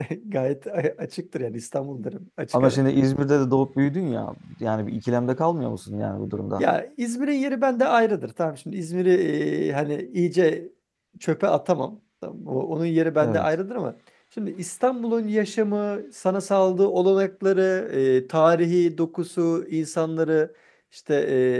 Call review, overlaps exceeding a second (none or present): none